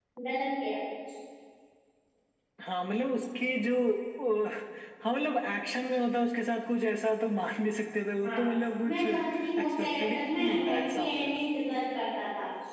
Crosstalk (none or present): present